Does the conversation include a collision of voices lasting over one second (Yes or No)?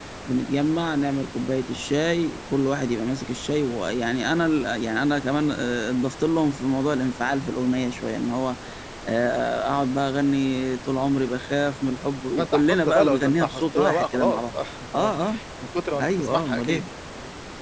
Yes